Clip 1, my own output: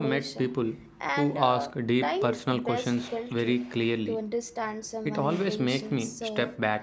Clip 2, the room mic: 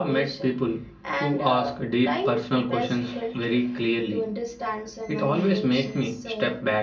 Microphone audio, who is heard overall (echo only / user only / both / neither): echo only